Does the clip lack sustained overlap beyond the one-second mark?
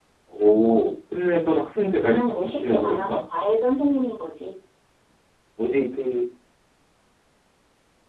No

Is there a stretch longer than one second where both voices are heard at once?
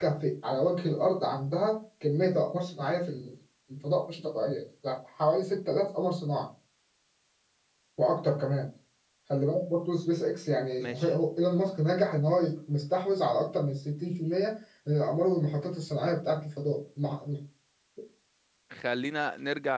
No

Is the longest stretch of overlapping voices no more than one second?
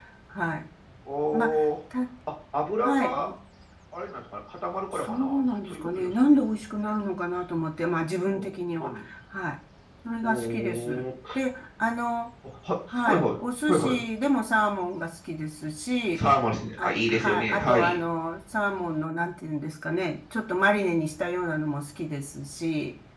No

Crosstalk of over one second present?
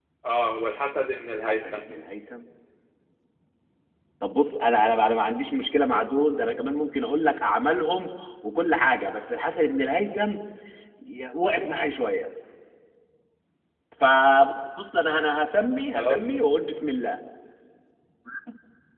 No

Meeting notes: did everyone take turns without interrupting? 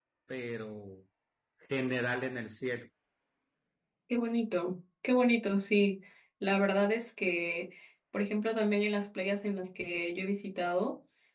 Yes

